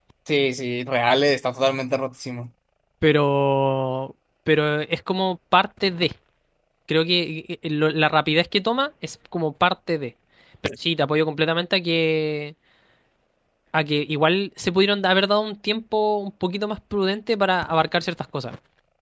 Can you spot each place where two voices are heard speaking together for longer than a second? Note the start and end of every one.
none

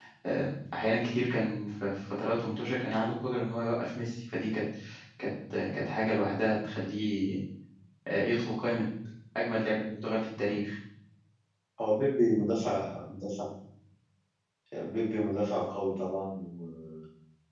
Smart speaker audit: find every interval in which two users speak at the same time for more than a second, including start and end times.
none

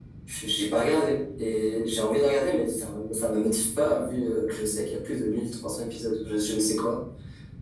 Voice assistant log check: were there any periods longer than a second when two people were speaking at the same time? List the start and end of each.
none

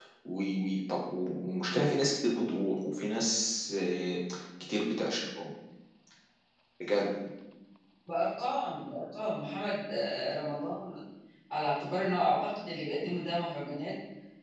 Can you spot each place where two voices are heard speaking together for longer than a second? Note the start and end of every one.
none

